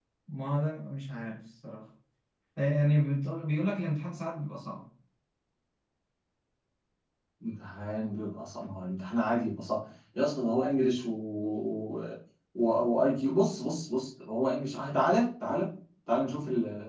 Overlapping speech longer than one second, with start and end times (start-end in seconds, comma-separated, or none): none